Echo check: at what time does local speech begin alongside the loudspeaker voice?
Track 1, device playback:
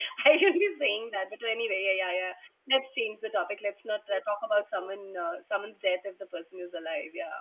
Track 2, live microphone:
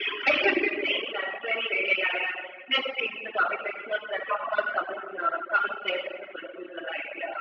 none

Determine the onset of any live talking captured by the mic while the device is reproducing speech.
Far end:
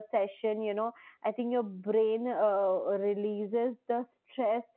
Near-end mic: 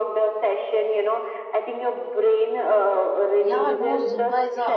3.4 s

